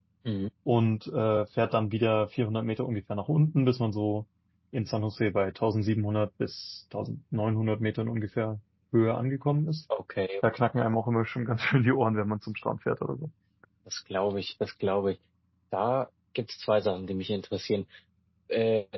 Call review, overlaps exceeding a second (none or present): none